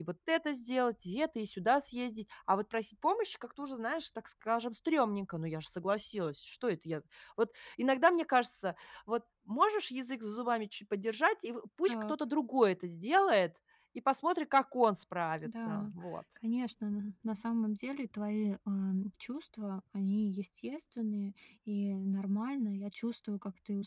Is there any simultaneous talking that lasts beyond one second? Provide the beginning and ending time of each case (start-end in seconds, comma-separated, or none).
none